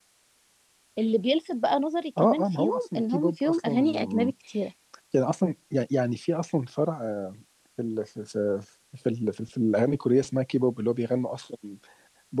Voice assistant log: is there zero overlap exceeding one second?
No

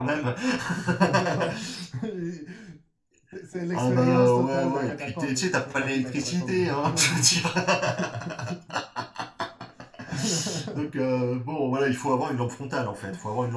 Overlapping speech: Yes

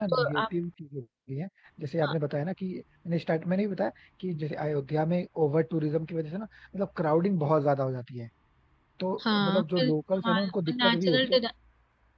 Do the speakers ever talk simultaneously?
Yes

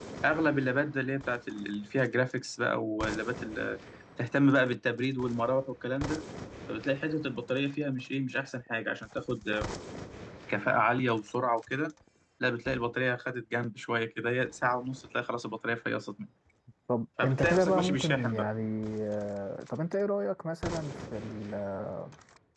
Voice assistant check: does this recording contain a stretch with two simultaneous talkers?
Yes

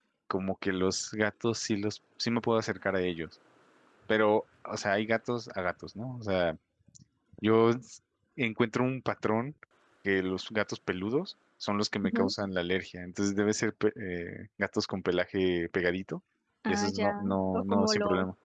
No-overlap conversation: No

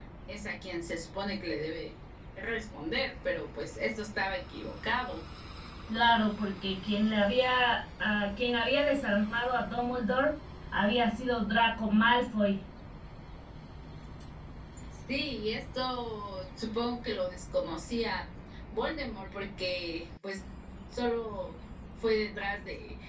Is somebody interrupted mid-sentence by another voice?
No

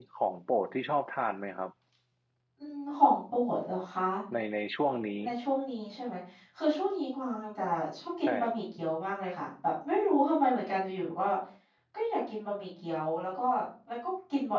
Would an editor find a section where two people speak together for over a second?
No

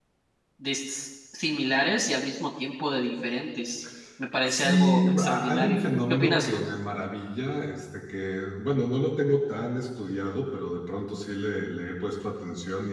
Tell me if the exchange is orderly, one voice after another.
No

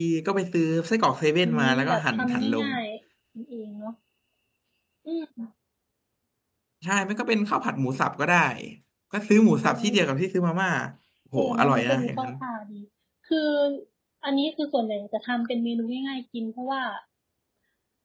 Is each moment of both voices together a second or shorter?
No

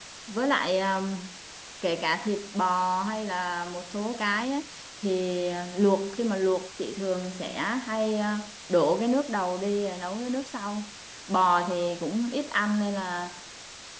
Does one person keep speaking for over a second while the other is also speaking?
No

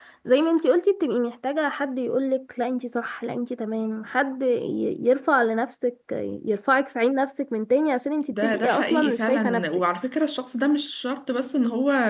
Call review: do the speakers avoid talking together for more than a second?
No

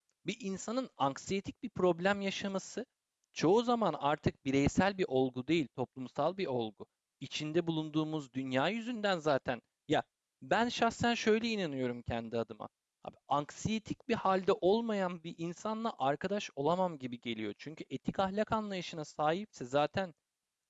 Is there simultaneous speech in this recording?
No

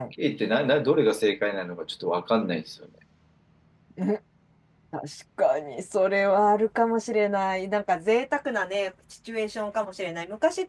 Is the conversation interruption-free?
Yes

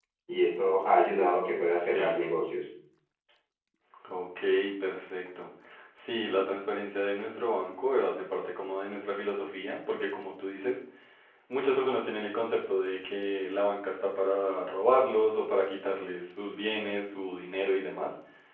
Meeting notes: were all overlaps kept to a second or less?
Yes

